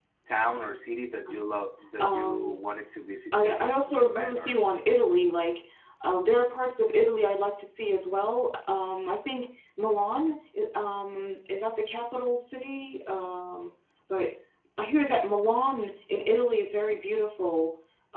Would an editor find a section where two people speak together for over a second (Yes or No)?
Yes